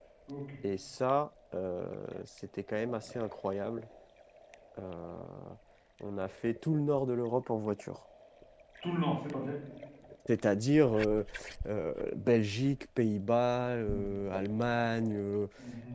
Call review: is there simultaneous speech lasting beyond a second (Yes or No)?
No